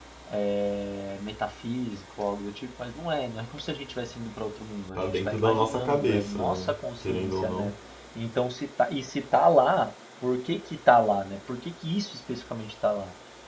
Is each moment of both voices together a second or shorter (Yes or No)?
No